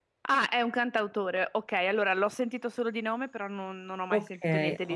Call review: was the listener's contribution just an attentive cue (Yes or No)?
No